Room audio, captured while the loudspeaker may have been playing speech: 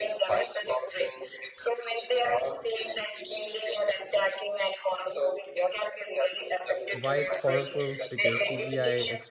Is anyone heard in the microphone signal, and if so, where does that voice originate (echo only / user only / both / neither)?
both